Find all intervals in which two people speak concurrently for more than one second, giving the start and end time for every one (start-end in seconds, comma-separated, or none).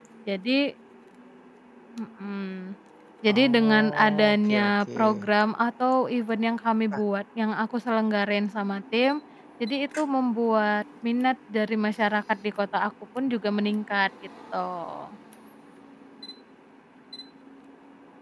3.3-5.0